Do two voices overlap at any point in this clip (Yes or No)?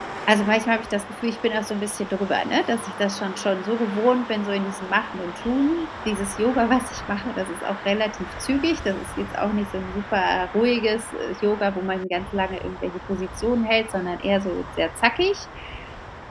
No